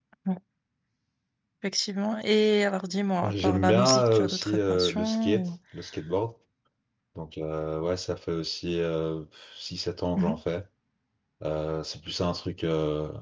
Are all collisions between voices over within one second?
No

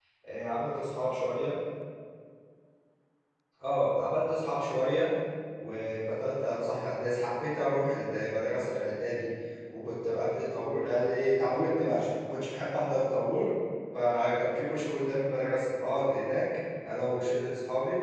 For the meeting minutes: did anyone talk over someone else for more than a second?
No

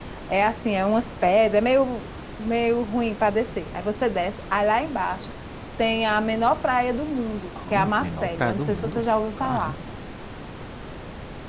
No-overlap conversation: No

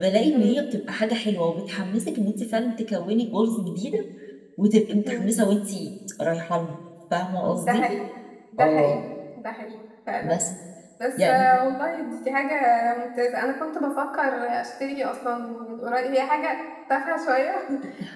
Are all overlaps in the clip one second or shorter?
Yes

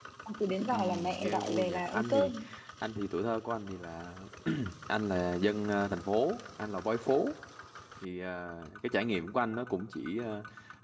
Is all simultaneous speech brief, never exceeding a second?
No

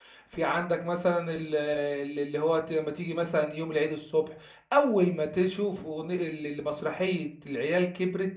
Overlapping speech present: No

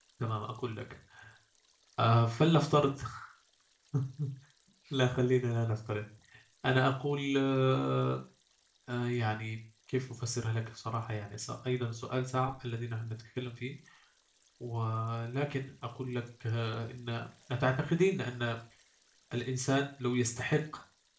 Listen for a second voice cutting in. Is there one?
No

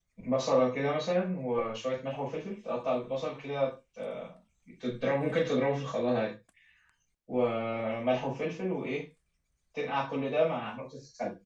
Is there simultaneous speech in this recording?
No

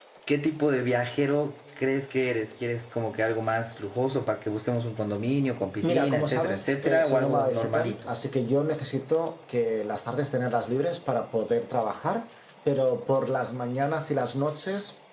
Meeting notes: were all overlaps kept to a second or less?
No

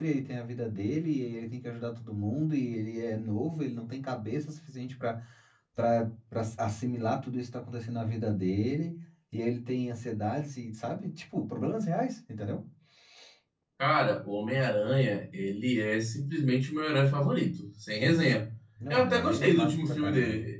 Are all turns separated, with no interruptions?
No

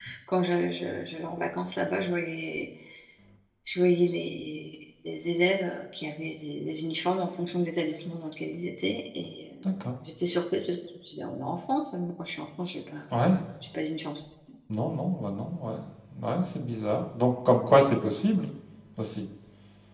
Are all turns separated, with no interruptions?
Yes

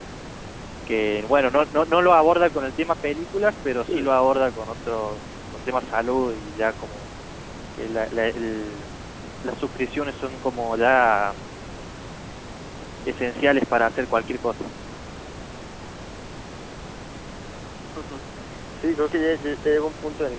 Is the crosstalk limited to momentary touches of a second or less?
Yes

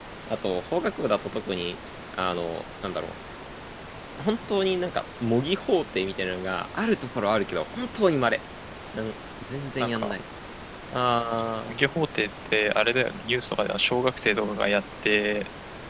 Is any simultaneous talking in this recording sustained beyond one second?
No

